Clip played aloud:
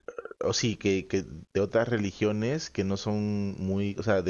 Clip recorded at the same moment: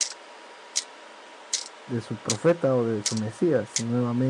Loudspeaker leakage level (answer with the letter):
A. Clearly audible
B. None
B